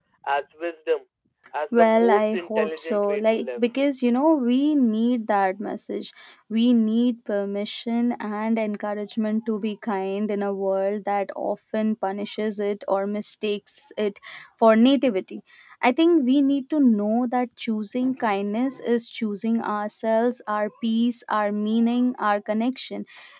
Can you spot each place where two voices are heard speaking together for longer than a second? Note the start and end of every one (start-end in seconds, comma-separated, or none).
1.7-3.6